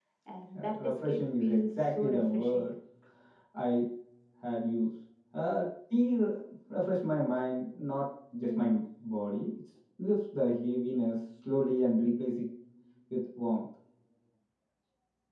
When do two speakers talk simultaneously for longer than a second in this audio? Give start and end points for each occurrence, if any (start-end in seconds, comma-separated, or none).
0.5-2.7